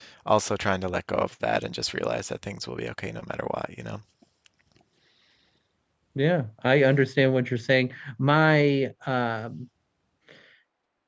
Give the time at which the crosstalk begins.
none

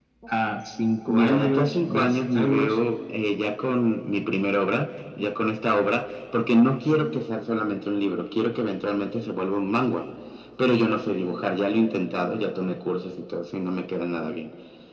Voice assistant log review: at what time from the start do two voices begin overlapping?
1 s

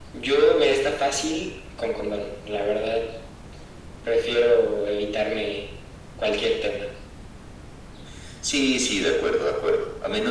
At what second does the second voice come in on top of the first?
none

